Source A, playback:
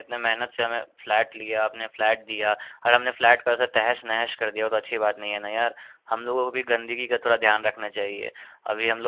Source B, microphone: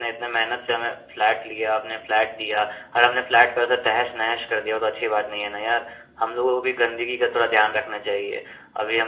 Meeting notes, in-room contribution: none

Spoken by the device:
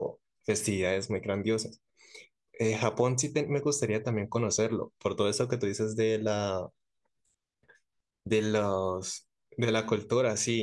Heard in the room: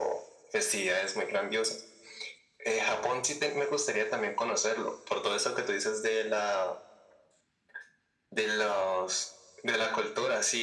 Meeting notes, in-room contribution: none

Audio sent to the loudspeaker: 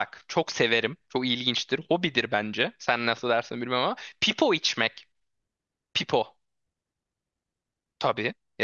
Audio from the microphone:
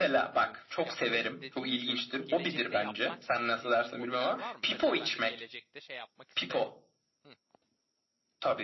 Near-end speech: present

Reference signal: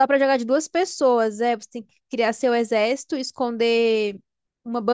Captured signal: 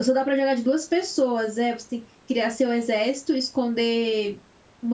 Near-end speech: none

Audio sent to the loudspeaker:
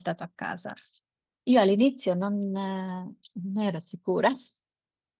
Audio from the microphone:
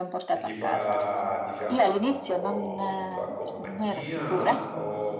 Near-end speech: present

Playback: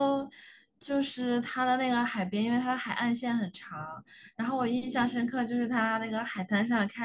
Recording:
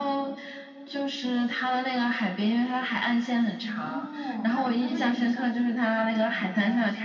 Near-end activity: present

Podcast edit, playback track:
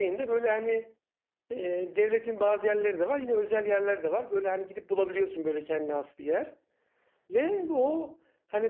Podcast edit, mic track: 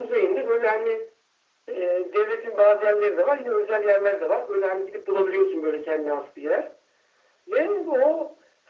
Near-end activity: none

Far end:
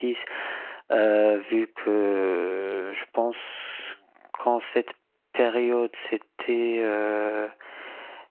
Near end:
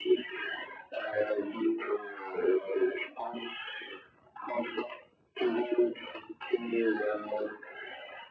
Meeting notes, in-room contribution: none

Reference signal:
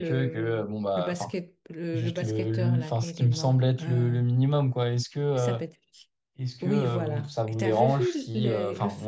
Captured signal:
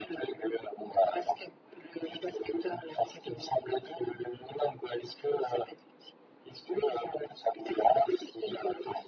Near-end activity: none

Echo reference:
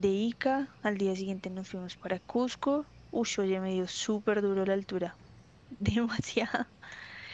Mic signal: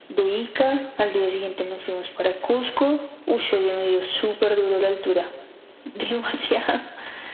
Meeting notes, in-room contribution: none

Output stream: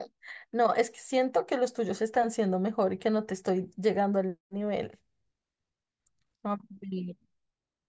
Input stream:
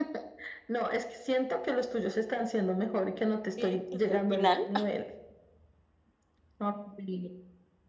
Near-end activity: present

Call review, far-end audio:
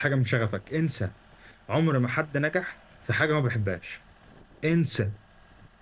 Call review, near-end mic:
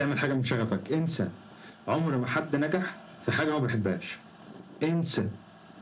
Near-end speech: none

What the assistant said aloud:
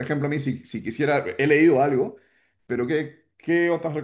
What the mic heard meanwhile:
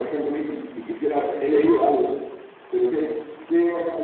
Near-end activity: none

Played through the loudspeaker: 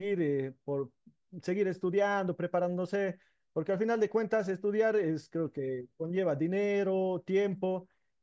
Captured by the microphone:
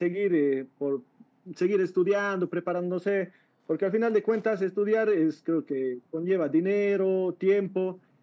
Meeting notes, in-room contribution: none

